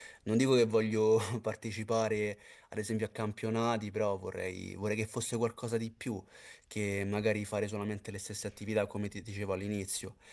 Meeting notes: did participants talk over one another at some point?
No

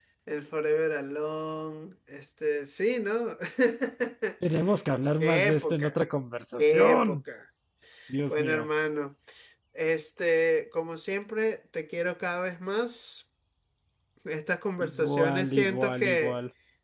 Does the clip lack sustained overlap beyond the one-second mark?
No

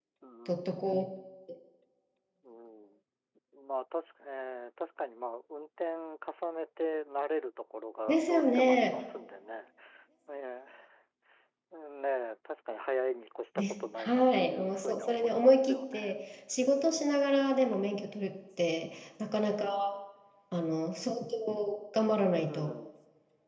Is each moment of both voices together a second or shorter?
No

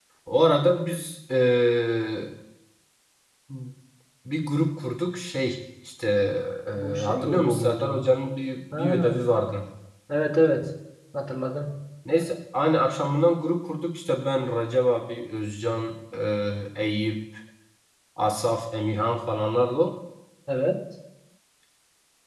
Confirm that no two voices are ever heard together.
No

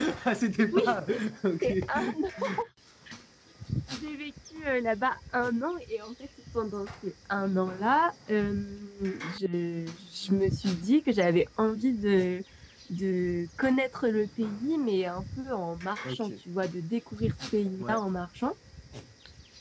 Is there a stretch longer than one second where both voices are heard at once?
No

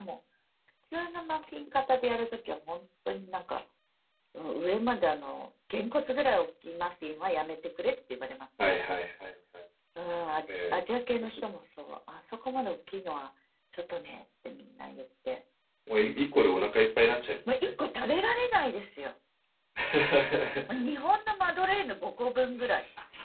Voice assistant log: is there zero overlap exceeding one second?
Yes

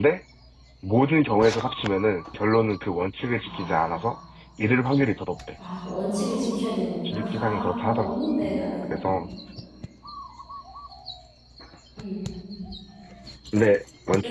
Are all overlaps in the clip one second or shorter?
No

